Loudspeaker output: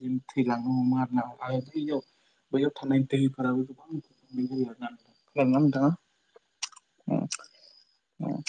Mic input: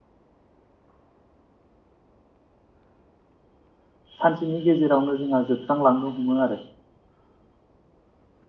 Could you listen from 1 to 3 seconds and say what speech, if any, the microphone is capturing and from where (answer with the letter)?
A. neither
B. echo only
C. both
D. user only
A